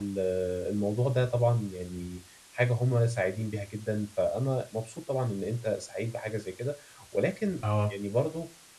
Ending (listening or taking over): listening